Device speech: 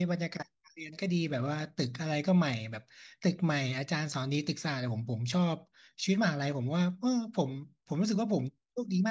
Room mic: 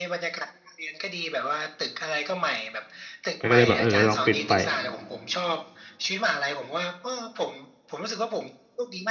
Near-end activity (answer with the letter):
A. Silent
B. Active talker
B